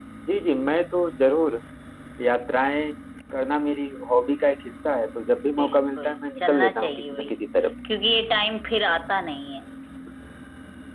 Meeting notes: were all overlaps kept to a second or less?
No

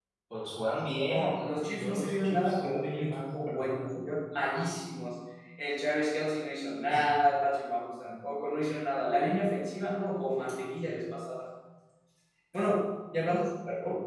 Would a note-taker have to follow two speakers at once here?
Yes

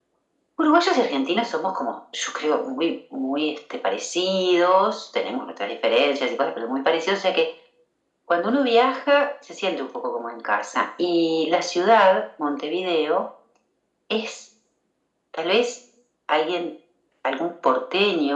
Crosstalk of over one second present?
No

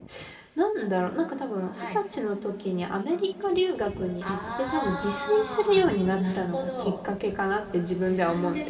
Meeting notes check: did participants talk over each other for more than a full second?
Yes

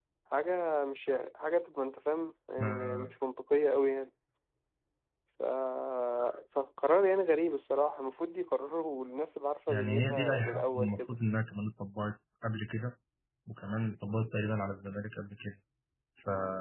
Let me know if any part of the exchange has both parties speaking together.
Yes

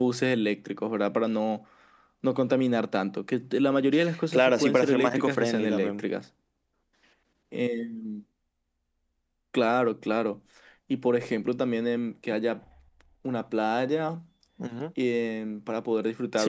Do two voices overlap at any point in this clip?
Yes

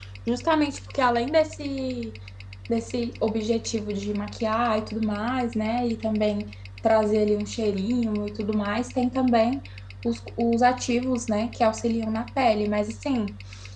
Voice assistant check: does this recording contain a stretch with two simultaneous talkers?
No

